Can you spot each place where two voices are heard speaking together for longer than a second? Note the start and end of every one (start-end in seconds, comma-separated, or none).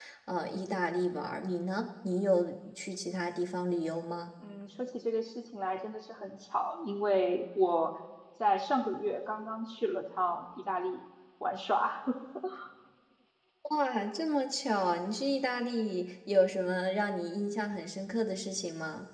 none